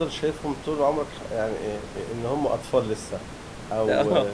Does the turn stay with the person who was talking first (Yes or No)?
Yes